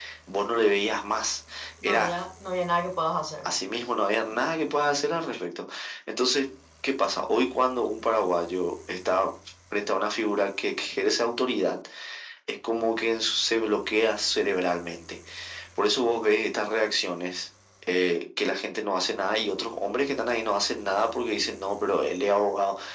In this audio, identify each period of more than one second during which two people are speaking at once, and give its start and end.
none

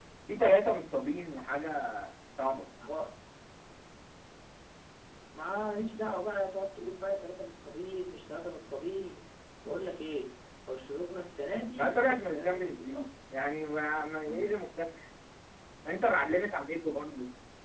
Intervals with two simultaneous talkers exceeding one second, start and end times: 11.8-13.0

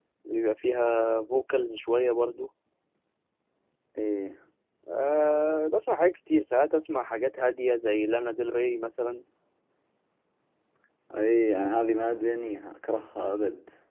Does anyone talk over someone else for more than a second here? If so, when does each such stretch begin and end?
none

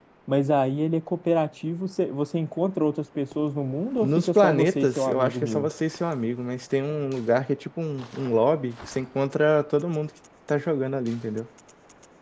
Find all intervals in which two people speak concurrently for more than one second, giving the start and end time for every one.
4.0-5.7

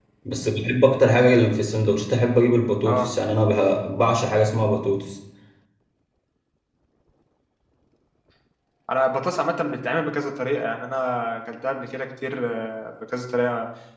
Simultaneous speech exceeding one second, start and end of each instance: none

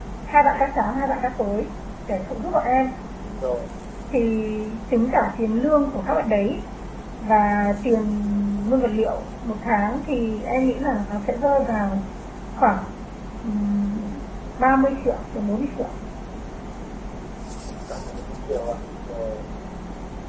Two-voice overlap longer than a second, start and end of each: none

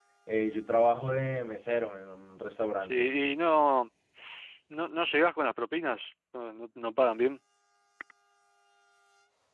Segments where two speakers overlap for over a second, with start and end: none

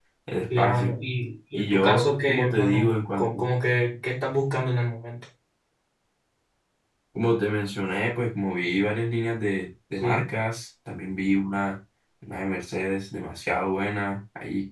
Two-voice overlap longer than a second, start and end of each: 1.5-3.4

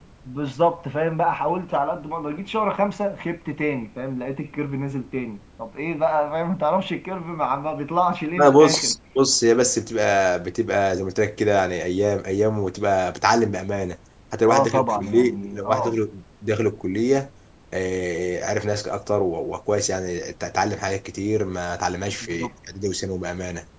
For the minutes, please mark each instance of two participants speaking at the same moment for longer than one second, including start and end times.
14.5-16.0

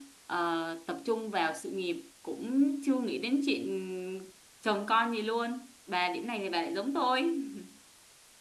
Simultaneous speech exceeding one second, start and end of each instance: none

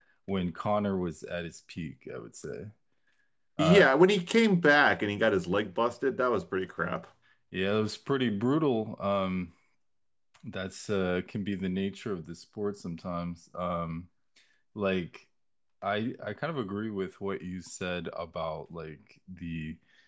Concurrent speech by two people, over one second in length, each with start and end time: none

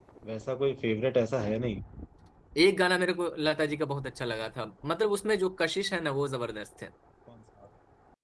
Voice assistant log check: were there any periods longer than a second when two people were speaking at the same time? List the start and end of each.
none

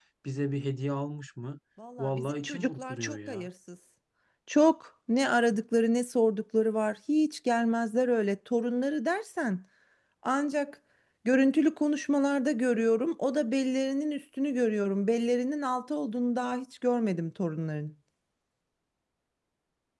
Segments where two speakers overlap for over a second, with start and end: 2.0-3.5

